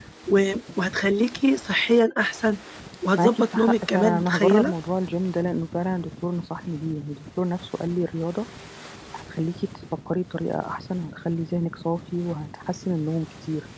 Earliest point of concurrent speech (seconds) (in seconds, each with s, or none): 3.2 s